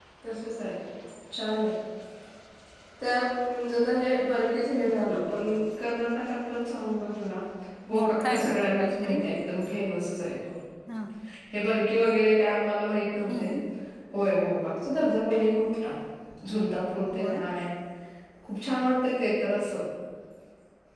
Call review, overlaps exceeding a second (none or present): present